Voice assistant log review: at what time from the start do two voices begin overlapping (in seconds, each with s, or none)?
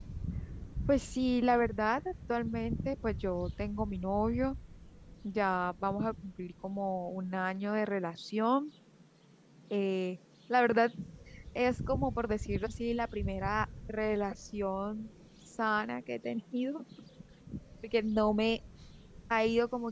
none